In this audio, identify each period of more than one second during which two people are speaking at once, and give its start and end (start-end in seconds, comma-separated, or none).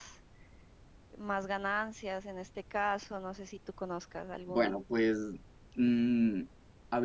none